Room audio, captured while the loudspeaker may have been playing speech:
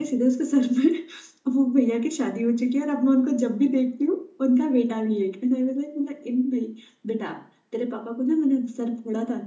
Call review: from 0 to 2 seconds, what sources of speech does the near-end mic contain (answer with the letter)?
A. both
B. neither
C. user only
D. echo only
C